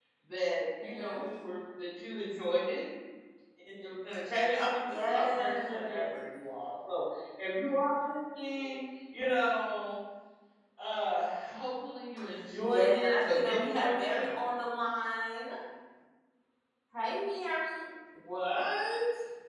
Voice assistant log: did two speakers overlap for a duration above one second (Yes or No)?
Yes